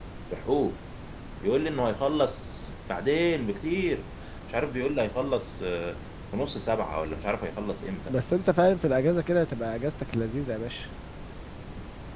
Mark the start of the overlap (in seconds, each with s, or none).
none